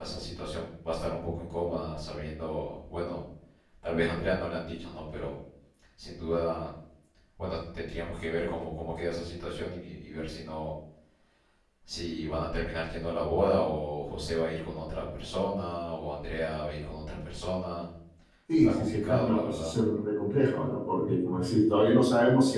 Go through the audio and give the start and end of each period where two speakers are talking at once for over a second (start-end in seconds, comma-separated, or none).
18.5-19.8